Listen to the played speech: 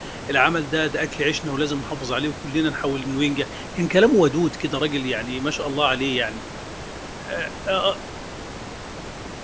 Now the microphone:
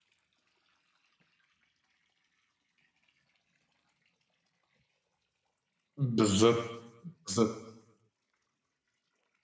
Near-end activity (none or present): present